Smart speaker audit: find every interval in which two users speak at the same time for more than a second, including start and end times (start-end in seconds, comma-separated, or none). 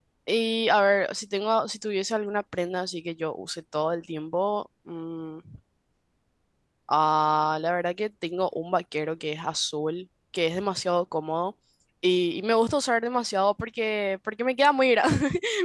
none